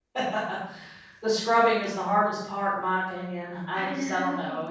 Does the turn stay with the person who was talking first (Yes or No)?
Yes